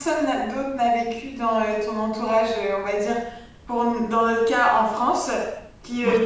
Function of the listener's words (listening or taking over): listening